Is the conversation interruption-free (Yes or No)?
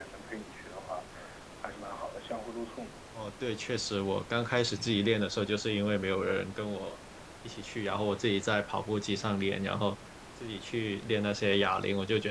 Yes